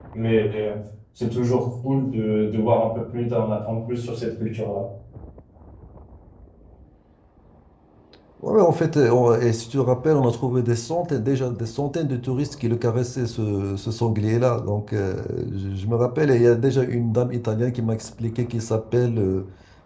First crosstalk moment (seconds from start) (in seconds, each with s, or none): none